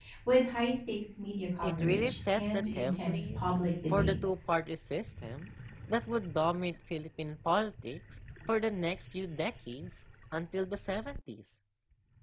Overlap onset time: 1.6 s

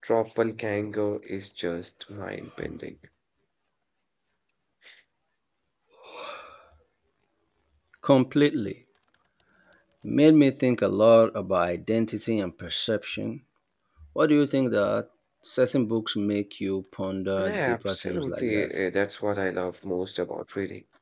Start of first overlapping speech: 17.4 s

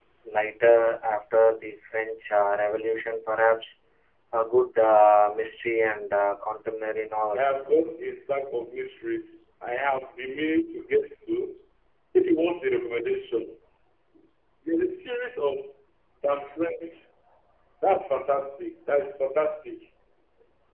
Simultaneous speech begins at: none

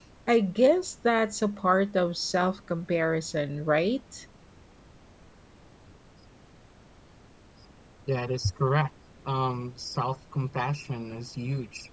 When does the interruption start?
none

